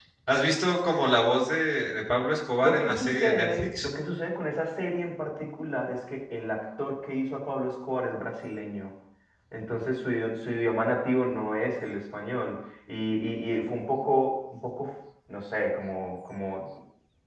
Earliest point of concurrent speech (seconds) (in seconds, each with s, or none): 2.6 s